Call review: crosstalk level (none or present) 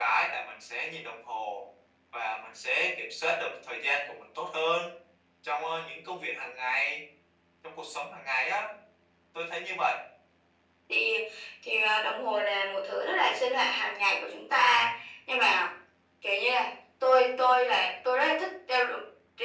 none